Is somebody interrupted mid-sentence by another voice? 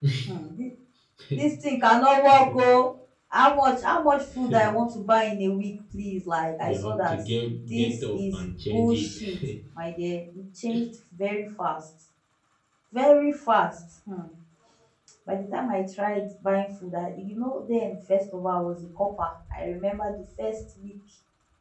Yes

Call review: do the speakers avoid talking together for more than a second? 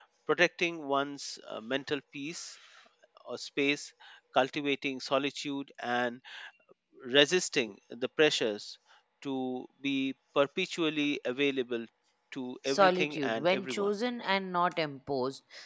No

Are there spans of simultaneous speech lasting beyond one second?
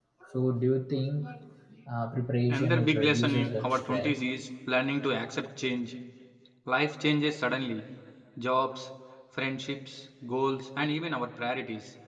Yes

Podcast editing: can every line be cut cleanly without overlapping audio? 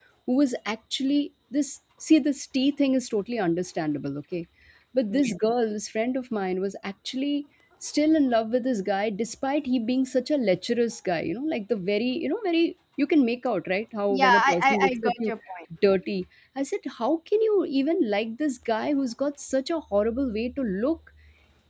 No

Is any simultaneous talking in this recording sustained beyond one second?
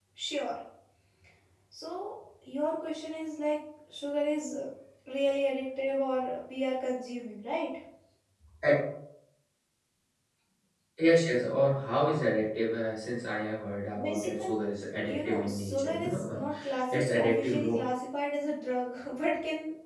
Yes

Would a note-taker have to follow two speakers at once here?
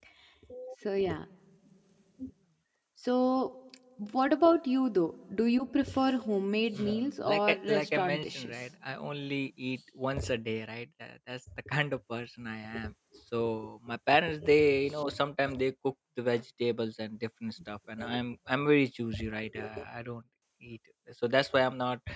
Yes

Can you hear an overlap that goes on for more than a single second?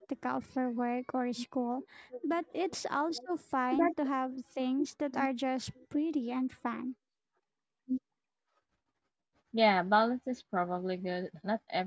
No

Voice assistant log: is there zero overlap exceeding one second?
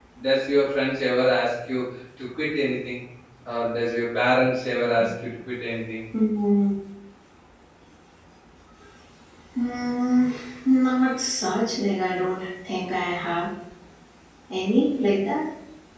Yes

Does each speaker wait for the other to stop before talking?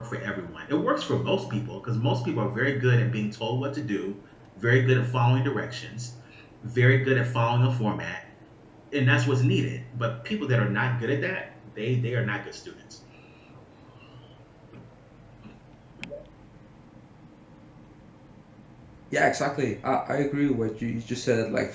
Yes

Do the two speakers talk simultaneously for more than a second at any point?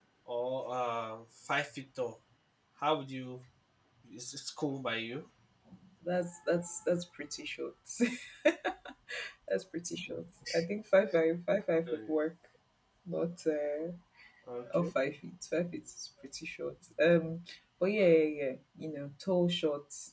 No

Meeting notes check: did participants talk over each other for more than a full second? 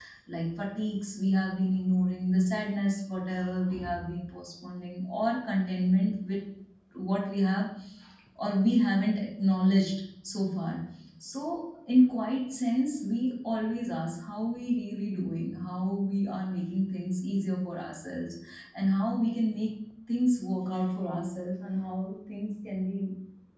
No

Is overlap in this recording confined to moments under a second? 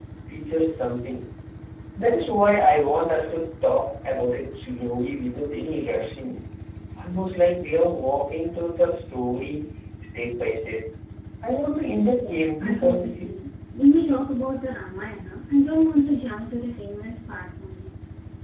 No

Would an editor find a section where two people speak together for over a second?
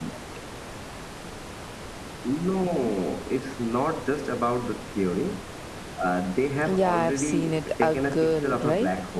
Yes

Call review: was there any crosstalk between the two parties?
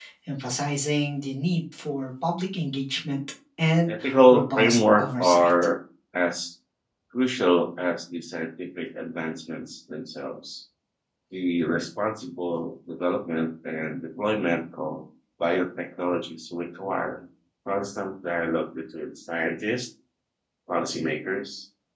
Yes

